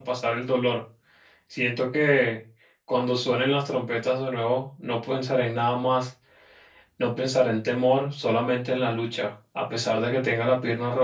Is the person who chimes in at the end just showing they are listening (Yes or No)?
Yes